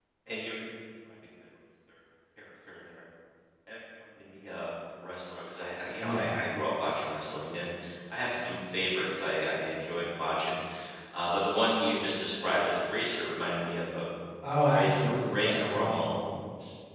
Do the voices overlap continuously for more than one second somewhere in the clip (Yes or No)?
Yes